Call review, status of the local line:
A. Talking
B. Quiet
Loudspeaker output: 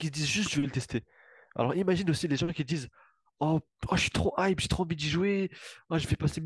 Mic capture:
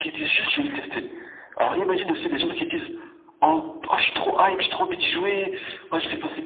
B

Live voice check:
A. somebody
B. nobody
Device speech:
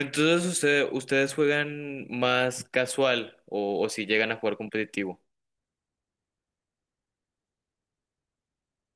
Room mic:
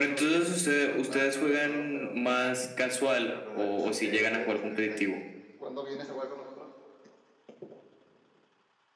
A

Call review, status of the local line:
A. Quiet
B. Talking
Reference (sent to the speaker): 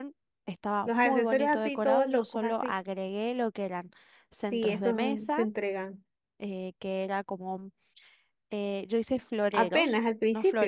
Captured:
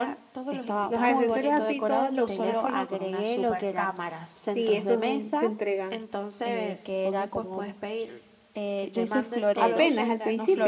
B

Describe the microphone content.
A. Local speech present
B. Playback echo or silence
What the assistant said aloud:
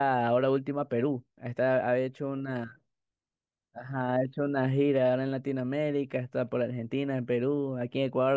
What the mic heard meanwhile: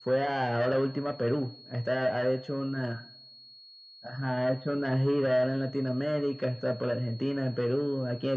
B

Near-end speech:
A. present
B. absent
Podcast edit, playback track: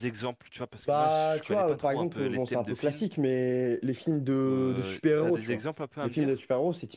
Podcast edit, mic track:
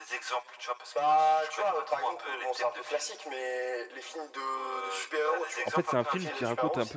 A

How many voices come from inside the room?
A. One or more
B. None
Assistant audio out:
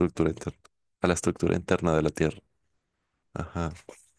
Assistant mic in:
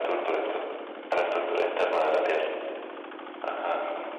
B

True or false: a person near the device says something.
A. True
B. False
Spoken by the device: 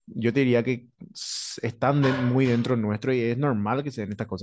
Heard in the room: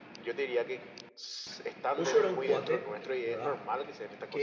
A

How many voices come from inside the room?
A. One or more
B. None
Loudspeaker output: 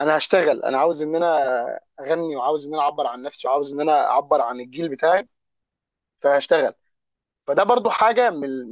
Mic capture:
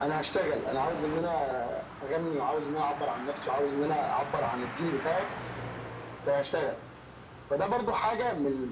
B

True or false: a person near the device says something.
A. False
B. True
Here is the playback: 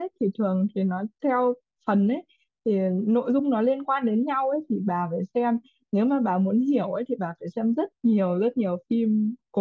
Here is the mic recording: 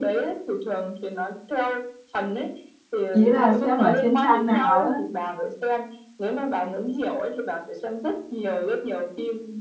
B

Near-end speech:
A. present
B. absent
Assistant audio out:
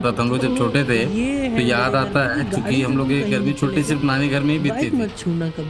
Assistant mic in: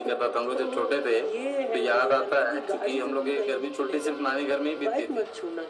B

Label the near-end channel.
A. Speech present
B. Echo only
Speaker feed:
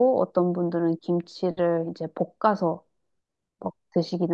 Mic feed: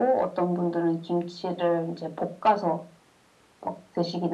B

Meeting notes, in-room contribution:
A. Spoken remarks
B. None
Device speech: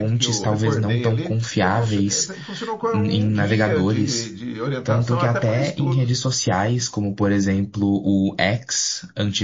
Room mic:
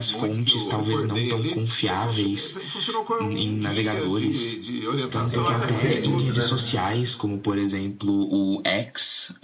A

